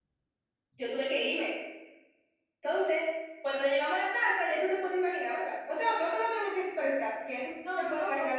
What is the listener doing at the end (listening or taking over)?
taking over